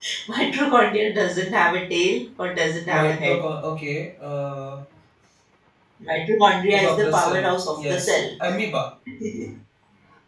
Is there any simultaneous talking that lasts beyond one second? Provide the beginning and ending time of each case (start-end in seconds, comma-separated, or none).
6.7-8.2